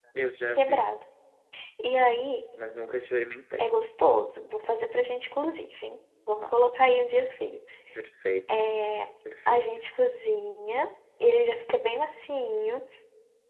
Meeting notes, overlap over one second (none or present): none